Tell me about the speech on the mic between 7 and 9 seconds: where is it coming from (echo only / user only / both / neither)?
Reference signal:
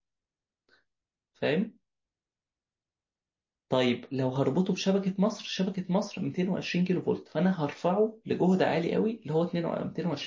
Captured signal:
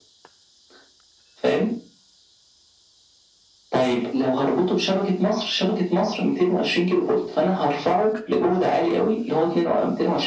echo only